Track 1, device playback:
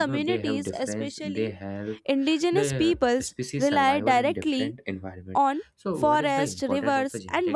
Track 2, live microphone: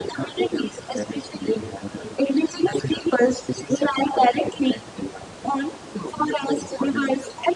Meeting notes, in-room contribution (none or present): none